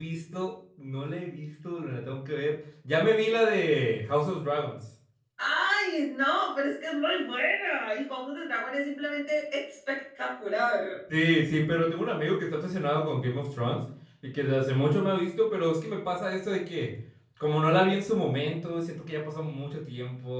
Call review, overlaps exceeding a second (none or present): none